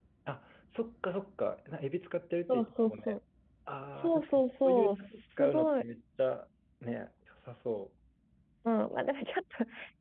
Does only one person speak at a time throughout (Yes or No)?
No